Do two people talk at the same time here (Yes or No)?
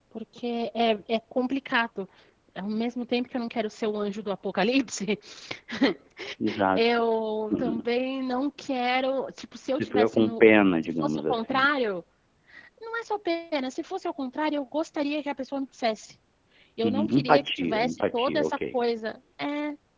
Yes